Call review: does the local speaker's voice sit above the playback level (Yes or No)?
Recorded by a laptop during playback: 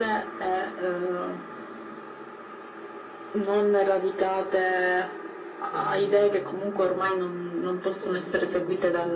No